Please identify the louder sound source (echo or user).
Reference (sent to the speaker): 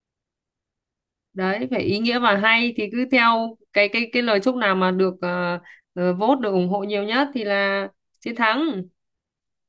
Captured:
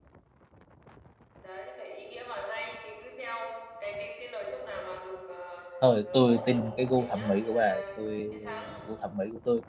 user